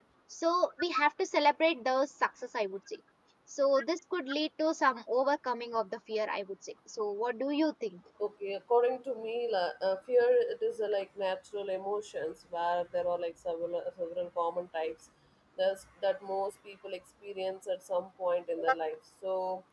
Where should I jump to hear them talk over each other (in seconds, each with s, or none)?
none